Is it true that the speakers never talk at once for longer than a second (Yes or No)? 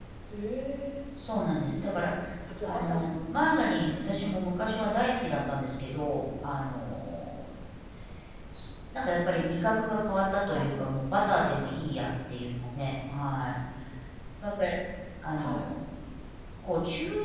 No